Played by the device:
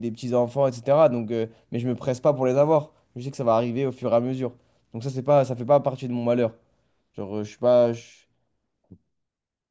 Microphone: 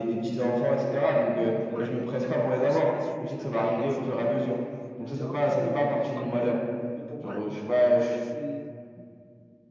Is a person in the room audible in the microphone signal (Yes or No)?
Yes